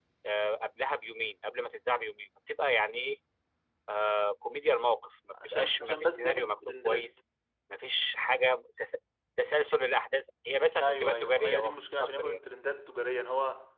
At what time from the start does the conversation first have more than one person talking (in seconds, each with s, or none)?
5.3 s